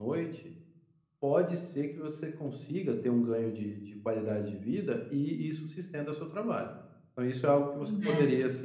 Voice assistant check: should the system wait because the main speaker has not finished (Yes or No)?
Yes